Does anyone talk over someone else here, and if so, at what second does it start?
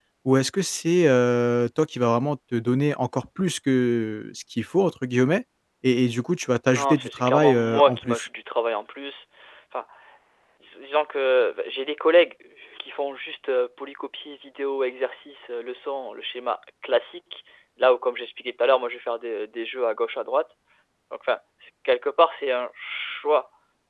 6.7 s

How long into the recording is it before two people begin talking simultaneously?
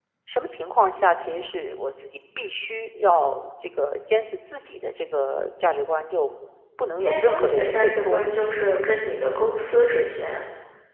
7.0 s

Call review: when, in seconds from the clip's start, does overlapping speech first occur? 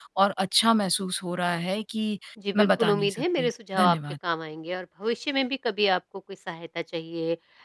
2.6 s

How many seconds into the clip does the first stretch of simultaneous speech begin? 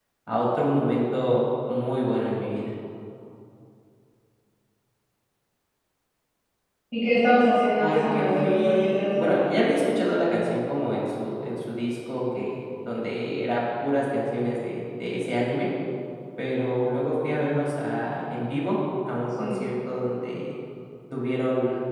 7.8 s

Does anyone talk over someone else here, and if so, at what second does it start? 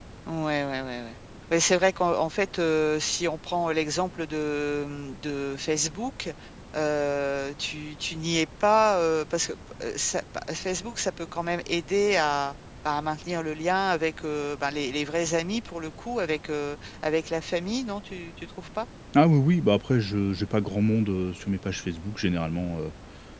none

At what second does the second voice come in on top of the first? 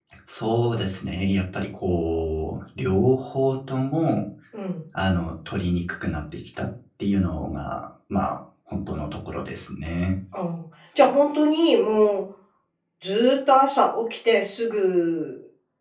none

